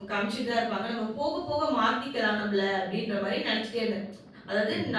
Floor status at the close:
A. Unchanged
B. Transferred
A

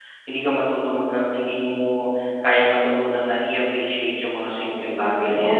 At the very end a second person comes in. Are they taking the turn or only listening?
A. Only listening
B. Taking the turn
A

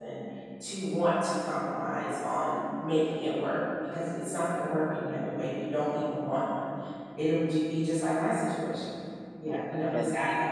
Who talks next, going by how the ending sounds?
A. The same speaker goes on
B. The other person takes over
B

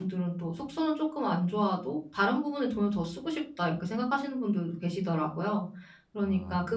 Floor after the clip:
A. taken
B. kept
B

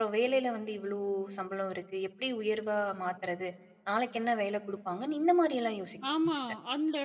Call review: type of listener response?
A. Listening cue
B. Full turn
B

